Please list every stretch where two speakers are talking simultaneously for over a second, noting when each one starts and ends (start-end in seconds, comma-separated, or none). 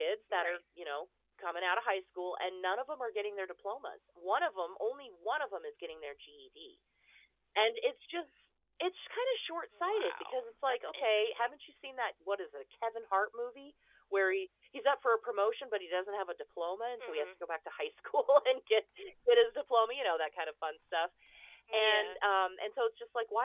9.8-11.5